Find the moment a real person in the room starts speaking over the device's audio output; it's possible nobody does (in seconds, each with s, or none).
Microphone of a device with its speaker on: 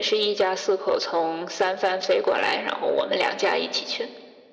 none